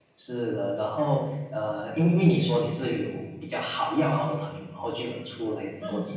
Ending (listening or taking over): listening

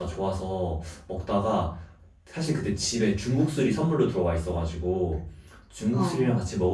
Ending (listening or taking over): listening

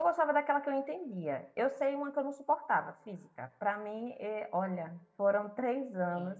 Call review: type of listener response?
listening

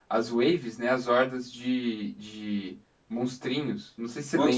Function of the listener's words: taking over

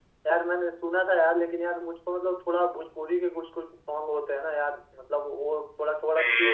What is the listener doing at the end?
listening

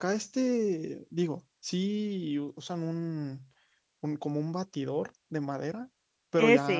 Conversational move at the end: listening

